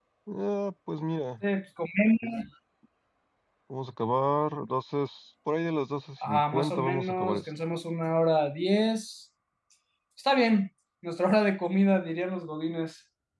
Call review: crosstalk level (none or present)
present